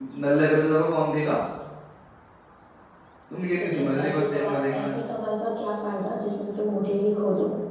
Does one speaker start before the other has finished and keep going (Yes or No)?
Yes